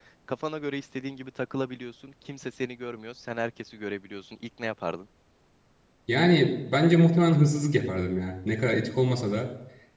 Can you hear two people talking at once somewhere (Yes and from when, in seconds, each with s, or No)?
No